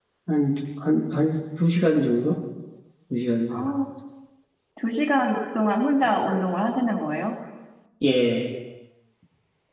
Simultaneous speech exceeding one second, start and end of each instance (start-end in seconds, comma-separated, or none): none